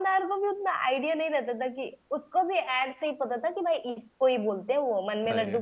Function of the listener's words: listening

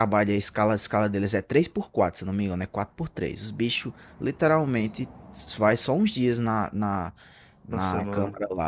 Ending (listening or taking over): listening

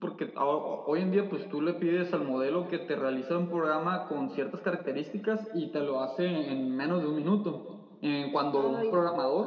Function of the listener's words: listening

